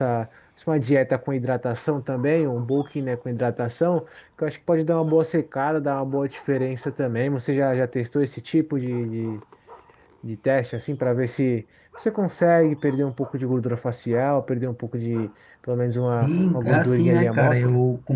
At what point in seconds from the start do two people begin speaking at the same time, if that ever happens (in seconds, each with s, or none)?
16.2 s